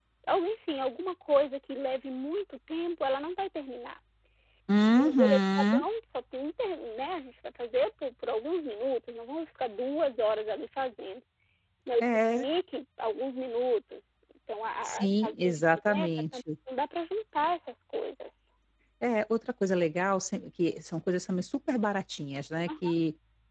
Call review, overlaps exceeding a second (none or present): present